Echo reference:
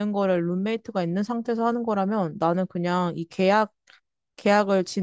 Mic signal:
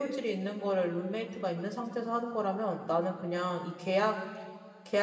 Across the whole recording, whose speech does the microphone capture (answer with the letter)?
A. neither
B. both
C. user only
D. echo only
D